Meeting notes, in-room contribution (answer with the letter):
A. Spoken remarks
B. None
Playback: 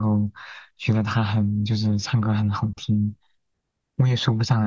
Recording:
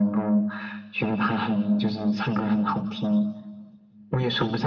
B